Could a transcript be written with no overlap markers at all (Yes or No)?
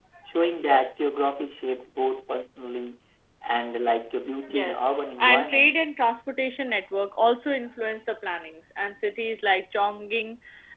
No